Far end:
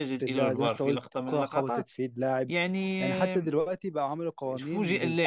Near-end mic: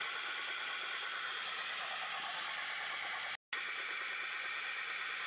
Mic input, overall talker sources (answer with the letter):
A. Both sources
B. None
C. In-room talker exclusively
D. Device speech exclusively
B